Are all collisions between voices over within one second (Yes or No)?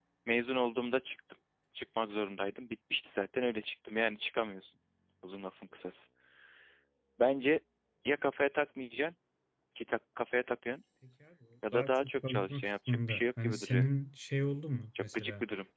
No